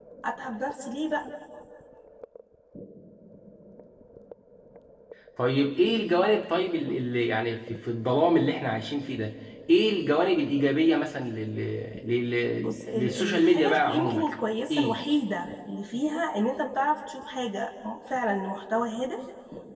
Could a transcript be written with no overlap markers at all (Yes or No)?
No